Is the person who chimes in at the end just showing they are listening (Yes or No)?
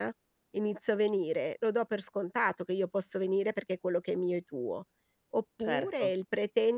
Yes